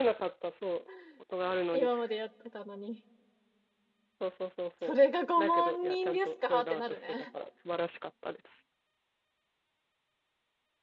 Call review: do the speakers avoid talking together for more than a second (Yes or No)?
No